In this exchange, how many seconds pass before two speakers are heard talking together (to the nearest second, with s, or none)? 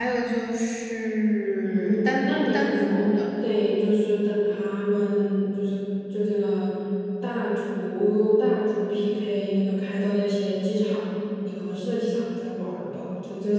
2 s